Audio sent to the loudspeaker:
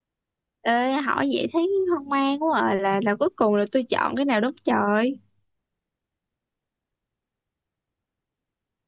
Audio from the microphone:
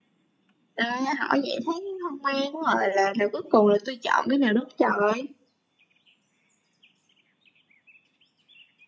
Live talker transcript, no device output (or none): none